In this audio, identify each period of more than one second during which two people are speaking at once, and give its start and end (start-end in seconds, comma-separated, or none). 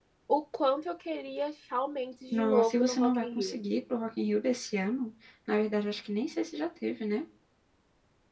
2.3-3.6